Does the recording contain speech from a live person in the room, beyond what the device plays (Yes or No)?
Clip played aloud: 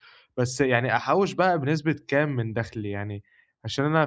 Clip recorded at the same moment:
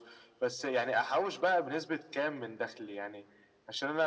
No